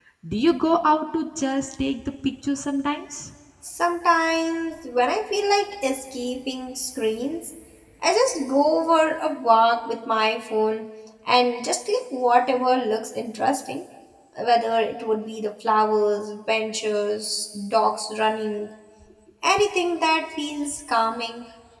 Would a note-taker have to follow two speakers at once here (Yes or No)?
No